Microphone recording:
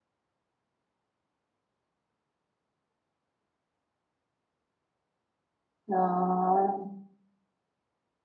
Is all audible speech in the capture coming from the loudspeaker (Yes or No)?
No